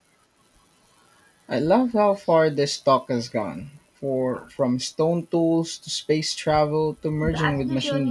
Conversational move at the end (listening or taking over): taking over